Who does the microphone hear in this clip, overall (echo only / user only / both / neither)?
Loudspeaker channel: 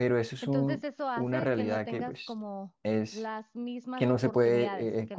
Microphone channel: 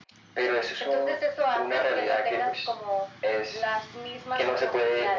echo only